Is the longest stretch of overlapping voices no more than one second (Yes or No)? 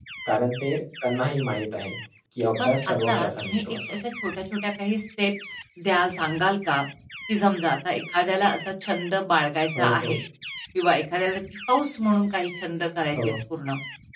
No